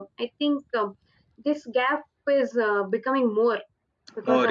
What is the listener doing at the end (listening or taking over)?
taking over